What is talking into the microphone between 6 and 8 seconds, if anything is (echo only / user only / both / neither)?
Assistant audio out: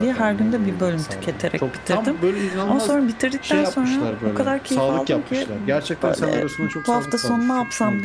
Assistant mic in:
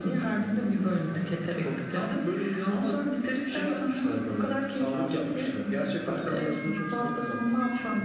echo only